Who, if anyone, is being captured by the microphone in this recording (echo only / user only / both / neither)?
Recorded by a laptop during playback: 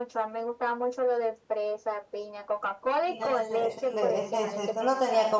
both